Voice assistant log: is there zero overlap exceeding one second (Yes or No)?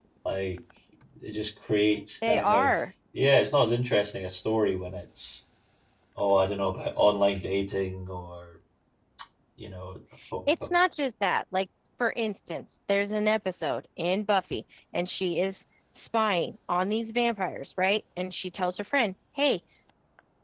Yes